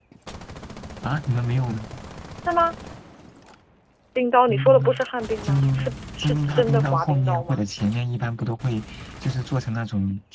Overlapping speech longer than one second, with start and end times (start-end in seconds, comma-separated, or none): 5.4-7.6